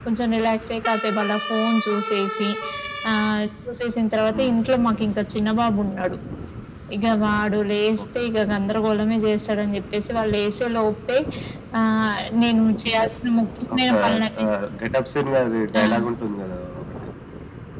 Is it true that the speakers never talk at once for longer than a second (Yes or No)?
Yes